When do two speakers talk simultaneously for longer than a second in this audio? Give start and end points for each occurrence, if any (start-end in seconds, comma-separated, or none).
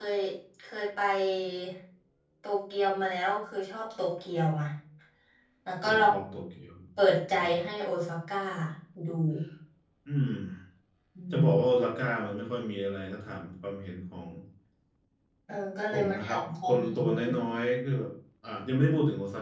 15.9-17.2